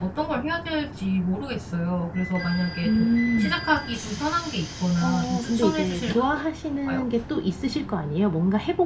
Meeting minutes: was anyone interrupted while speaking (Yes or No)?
Yes